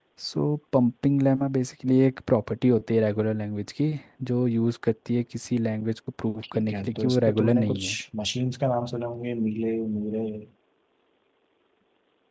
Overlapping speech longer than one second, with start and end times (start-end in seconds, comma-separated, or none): 6.5-8.0